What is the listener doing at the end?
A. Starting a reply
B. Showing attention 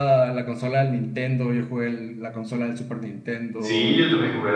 A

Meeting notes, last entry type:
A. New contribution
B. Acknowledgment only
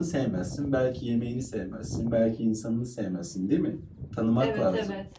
A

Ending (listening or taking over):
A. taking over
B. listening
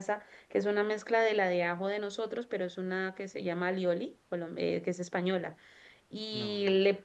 B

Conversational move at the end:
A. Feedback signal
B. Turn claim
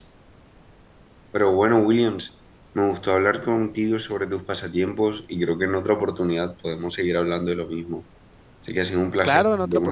B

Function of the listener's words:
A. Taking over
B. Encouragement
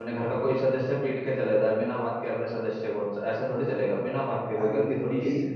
A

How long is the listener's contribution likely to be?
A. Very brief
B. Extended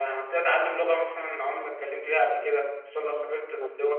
A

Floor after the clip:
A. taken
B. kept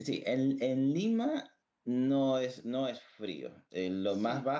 B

